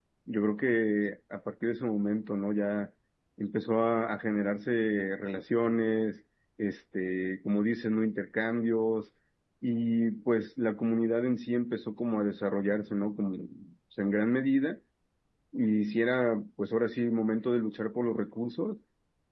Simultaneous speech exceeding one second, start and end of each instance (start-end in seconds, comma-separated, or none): none